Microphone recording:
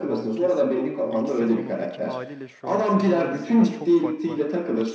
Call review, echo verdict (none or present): present